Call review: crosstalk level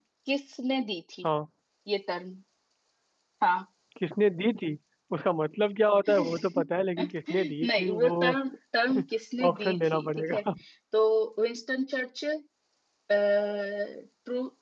present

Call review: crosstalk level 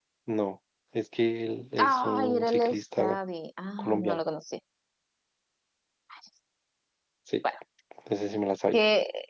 present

